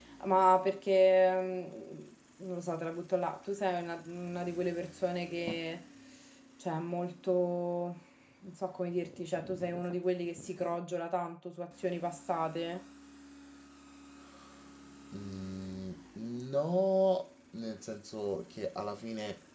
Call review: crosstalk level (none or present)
none